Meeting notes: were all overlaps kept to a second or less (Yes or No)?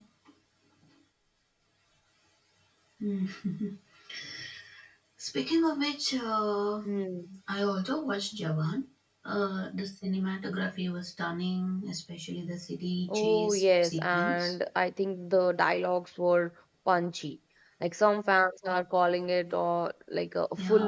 No